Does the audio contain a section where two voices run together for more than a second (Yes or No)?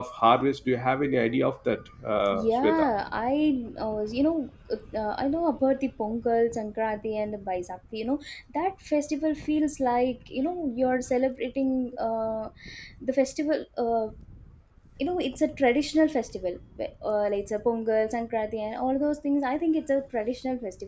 No